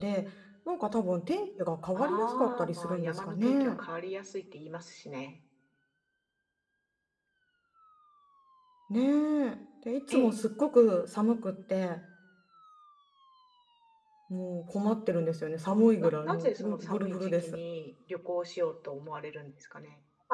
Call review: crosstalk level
present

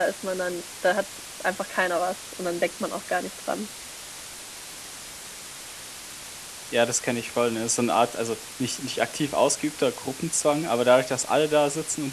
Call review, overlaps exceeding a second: none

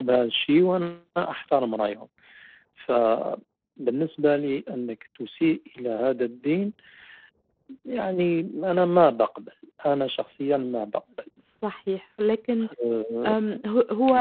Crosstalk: none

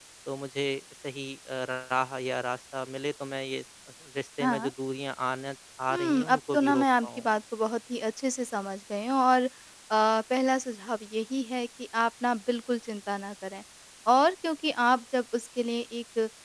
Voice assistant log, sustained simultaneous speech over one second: present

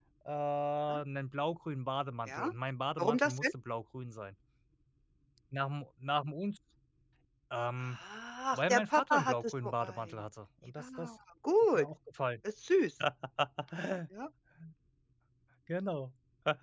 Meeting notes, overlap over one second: present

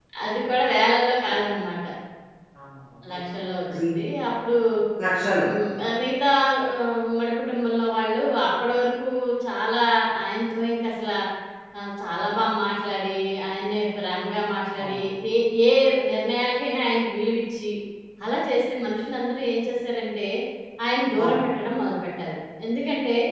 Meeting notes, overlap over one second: none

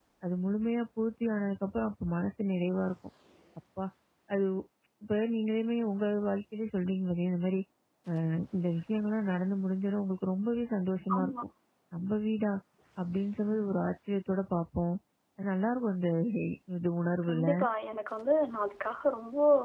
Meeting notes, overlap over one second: none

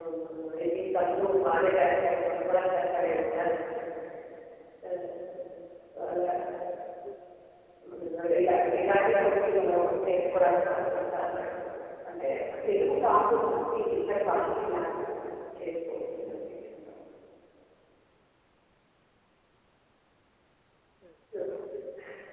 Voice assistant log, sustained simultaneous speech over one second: none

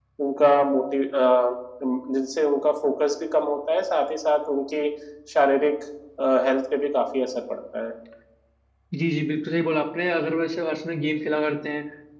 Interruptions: none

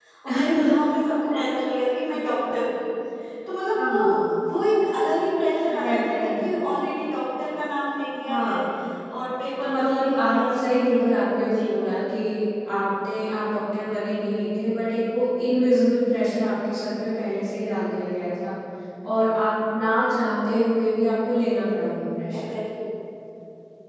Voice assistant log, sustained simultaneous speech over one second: present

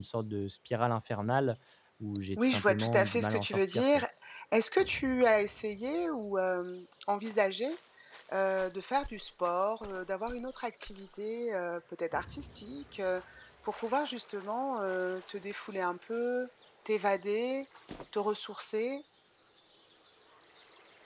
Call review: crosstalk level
present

